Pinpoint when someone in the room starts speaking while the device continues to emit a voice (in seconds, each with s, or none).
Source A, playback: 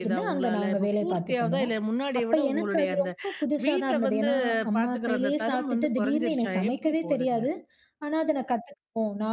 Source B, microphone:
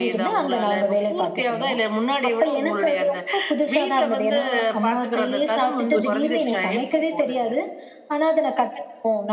5.9 s